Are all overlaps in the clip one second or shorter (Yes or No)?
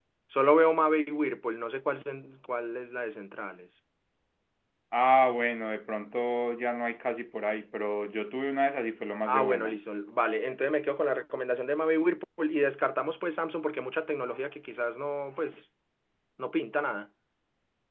Yes